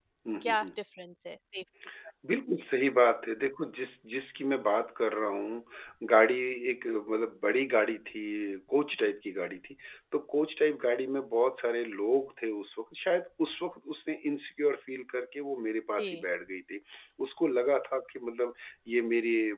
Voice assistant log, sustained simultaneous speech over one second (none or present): none